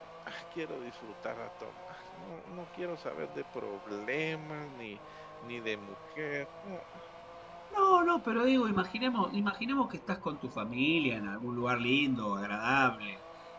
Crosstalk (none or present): none